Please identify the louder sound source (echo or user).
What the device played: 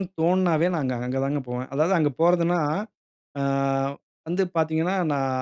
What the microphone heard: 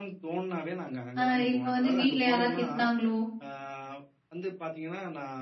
user